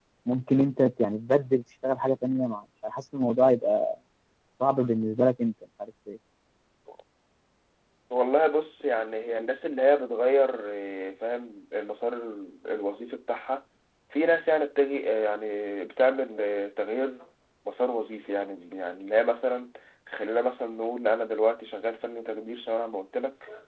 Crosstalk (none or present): none